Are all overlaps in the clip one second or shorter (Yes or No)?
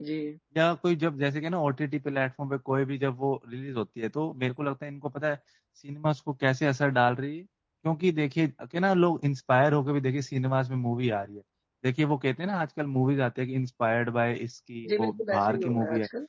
No